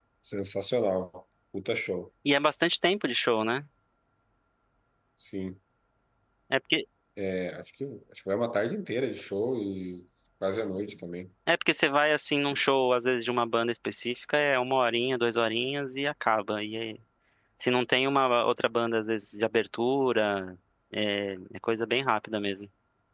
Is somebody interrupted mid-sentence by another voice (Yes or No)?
No